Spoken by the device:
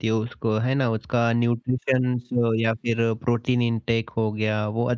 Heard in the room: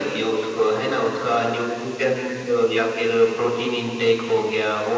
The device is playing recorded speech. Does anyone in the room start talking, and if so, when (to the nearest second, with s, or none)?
none